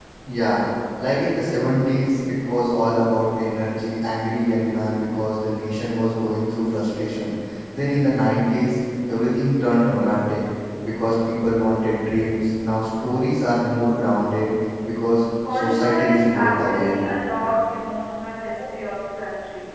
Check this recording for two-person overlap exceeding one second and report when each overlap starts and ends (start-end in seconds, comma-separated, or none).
15.5-16.9